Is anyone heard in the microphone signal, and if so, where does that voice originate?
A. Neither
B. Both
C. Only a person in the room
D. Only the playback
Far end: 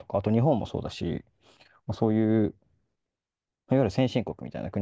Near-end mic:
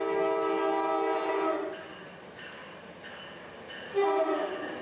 A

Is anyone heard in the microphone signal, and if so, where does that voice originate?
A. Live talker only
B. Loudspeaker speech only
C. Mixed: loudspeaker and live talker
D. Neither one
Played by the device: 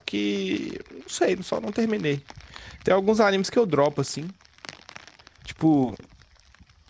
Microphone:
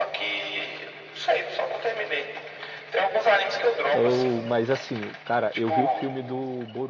C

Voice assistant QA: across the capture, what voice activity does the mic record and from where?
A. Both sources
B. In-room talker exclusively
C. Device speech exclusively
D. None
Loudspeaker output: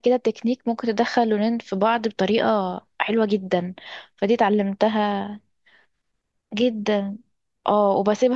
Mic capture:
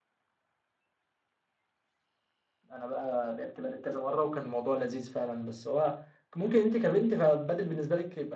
B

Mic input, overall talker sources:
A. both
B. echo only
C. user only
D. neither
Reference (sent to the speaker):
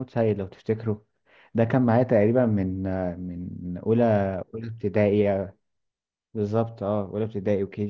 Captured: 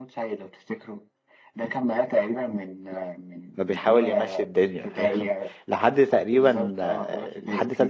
A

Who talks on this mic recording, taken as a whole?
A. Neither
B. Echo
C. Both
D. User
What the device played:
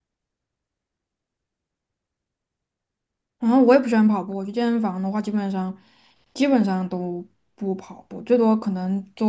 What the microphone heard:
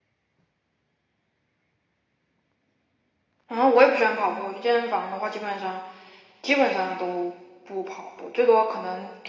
B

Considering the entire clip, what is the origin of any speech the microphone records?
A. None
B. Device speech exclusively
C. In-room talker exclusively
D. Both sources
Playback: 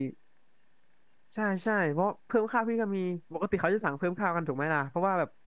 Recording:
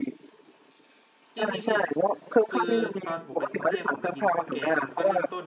D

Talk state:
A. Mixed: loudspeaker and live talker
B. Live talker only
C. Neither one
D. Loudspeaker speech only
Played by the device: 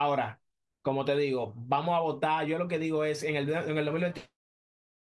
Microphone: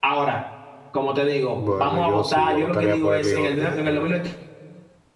A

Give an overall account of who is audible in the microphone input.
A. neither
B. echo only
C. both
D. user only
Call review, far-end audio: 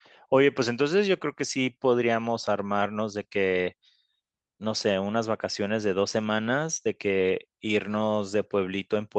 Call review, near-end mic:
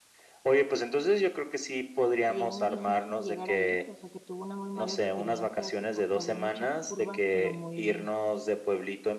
C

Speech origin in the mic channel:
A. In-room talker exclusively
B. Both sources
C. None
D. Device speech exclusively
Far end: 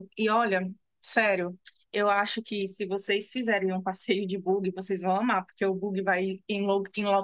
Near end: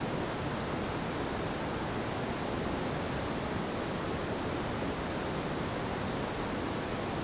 C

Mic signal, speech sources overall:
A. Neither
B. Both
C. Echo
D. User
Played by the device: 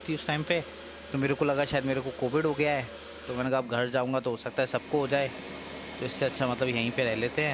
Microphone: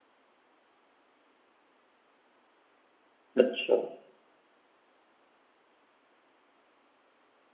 D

